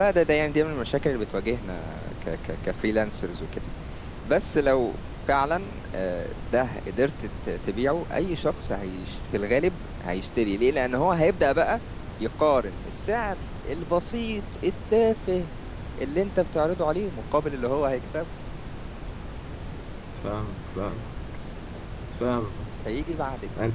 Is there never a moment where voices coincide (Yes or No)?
Yes